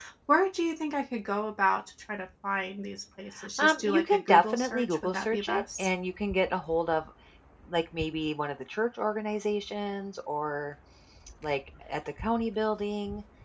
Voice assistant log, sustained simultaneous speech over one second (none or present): present